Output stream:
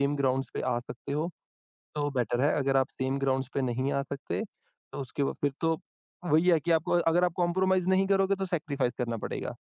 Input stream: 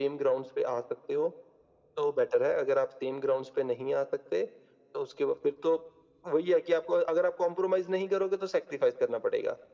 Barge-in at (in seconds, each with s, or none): none